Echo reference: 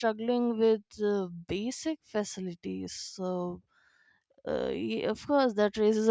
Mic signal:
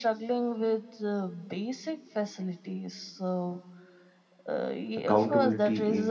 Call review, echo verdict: present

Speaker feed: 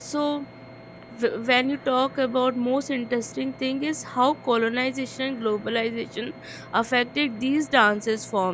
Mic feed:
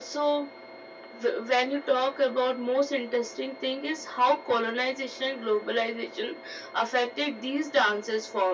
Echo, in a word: present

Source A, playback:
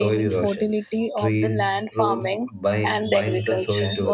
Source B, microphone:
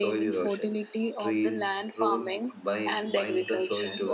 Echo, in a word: present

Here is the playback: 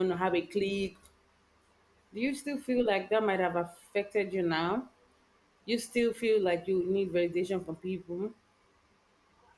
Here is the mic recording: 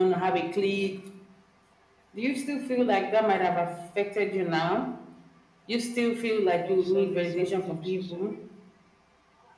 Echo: present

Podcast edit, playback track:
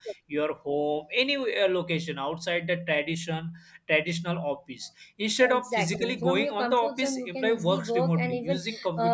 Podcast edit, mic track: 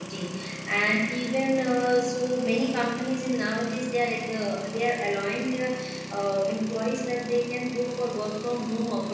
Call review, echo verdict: none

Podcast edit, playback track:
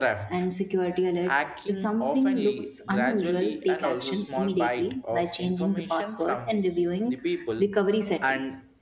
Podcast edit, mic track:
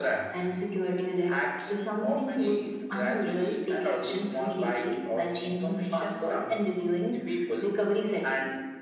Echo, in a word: present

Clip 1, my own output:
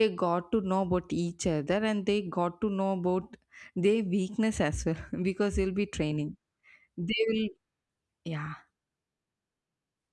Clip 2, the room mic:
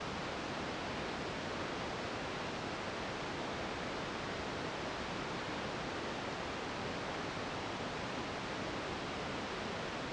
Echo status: none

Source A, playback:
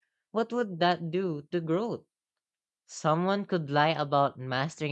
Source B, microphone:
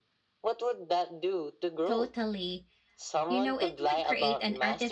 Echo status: present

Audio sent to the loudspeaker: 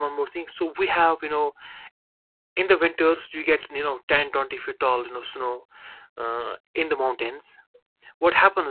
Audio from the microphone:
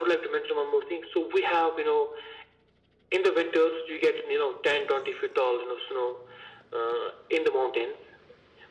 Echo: present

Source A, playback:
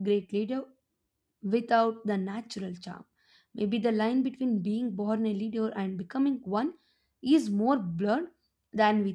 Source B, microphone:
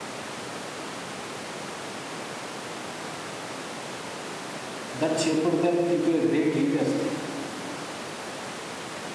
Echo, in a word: none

